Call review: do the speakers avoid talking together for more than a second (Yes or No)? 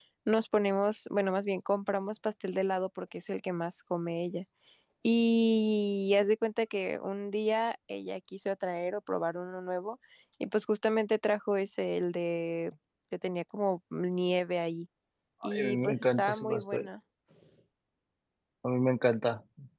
No